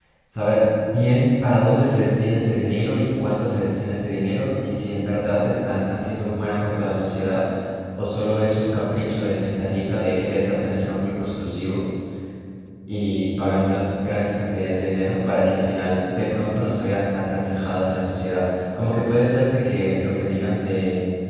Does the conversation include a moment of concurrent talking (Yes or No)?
No